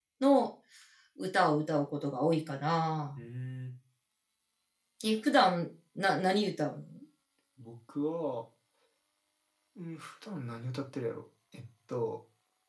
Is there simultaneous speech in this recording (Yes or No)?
No